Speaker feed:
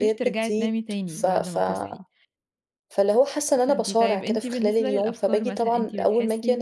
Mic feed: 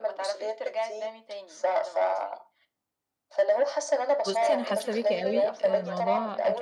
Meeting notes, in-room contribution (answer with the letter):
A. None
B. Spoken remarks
B